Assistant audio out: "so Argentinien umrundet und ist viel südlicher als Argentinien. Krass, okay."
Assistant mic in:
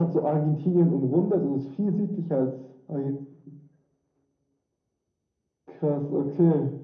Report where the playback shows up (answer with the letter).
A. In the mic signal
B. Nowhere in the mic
A